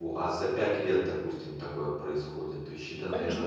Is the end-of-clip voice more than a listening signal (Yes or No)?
Yes